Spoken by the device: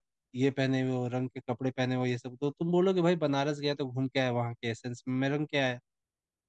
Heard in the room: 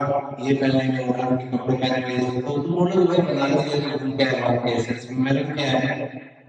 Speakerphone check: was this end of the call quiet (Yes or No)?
Yes